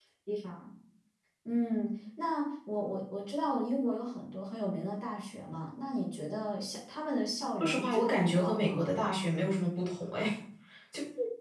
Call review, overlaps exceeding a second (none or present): present